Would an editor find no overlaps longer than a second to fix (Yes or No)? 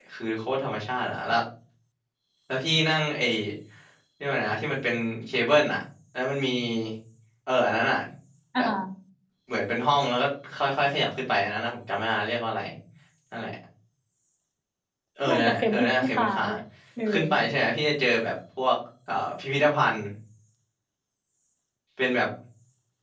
No